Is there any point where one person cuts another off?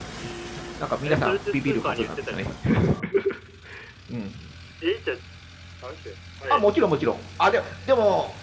Yes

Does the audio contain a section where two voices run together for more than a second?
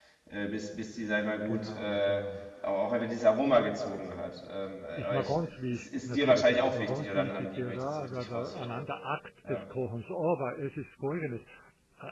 Yes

